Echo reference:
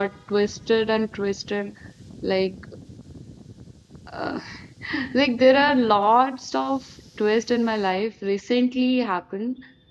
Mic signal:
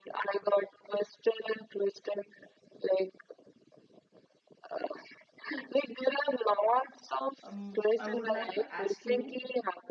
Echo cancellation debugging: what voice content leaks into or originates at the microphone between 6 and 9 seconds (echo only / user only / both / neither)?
both